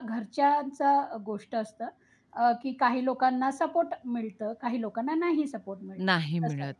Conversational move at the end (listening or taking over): taking over